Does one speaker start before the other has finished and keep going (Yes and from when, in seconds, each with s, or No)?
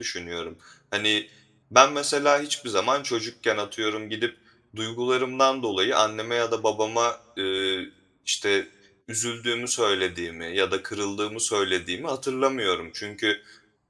No